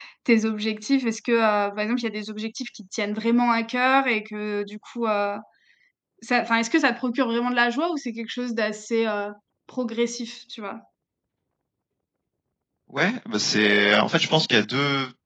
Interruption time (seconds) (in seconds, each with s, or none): none